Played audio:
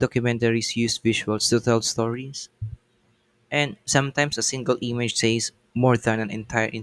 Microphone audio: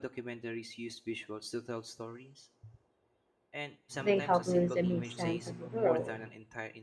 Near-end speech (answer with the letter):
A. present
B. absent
A